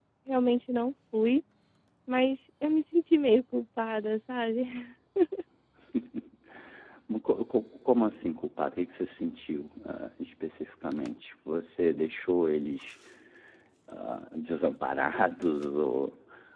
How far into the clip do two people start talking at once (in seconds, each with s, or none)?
none